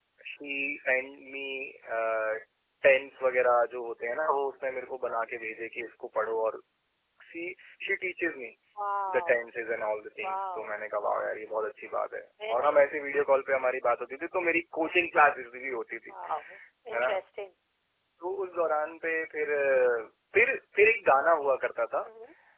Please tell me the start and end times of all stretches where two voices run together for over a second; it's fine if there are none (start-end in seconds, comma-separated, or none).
none